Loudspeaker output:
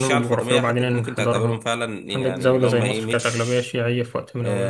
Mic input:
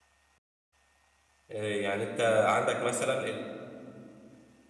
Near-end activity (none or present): present